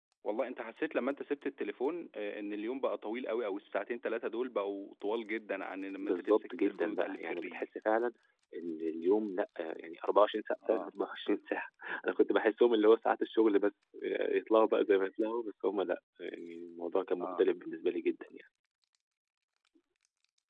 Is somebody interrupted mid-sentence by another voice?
Yes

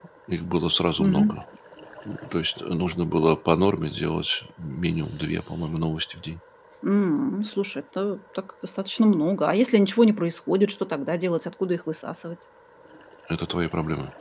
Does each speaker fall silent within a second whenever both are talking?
Yes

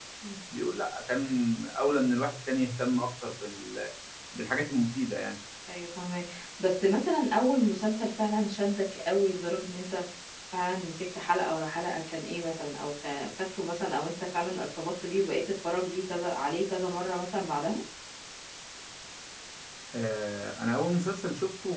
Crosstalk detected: No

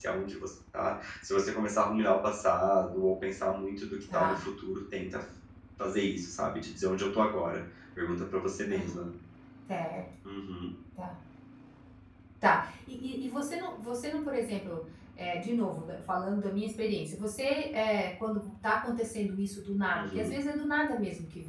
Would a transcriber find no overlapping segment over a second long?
Yes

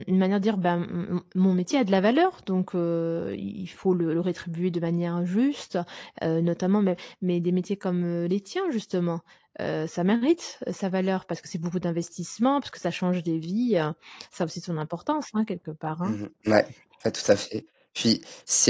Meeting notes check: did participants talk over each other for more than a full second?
No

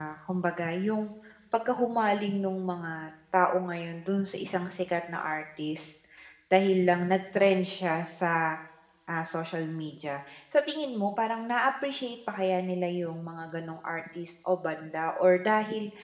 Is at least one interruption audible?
No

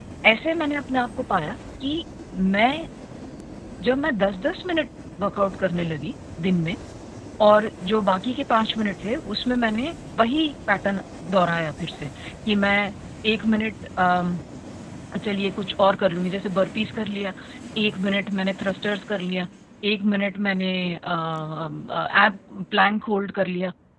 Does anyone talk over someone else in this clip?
No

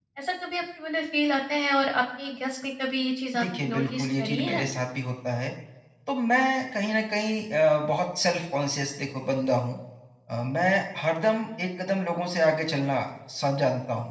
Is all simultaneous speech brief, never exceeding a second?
No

